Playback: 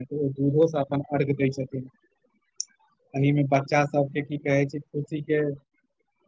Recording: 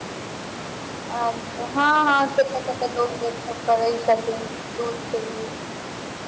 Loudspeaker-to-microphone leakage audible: No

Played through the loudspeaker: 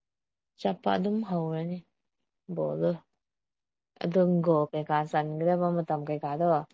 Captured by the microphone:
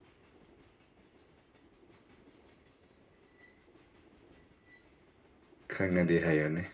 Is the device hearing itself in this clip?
No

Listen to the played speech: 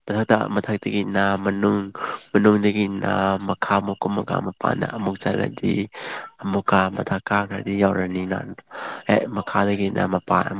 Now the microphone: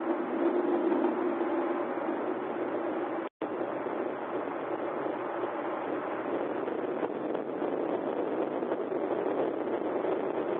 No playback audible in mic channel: Yes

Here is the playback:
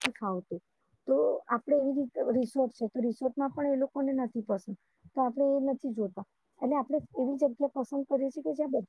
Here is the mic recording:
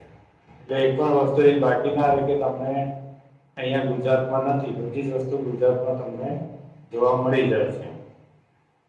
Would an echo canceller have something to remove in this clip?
No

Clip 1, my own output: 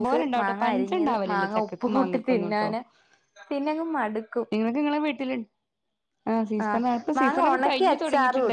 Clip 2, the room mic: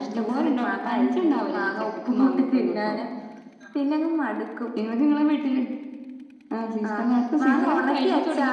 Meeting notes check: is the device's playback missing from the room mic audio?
No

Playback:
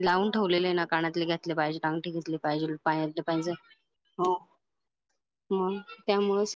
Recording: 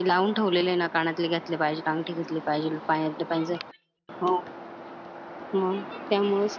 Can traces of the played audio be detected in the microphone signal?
Yes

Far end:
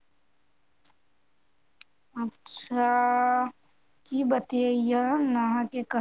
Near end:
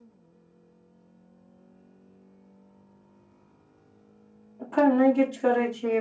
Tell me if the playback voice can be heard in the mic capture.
No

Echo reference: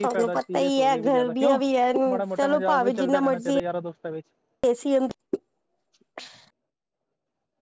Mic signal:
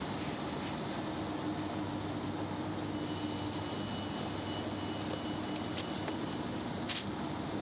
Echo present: No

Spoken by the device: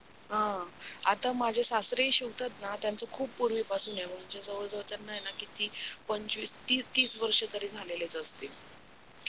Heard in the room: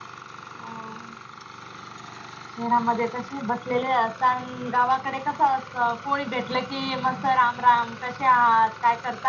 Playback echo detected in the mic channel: No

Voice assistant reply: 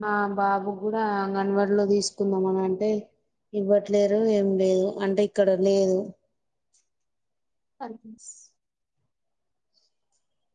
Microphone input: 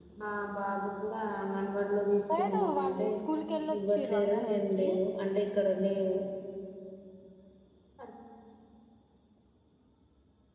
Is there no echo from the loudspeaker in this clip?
No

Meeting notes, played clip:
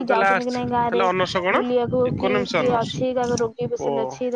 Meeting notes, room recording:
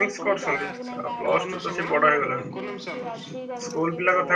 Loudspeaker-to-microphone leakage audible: Yes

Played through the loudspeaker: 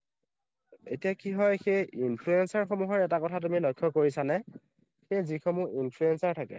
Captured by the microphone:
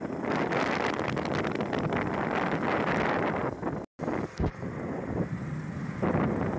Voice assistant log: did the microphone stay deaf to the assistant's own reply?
Yes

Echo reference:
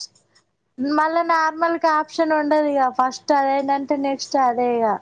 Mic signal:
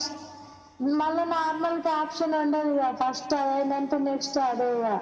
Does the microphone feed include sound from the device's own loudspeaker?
Yes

